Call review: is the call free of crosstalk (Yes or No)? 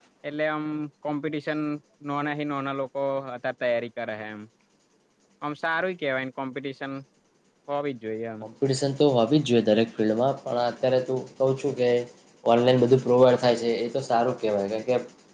Yes